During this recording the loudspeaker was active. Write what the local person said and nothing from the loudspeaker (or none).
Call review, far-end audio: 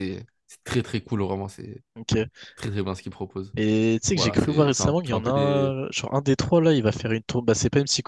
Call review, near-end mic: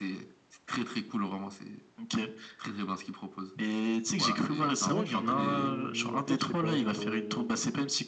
Ouais, je suis. En fait, je sais pas, genre. euh,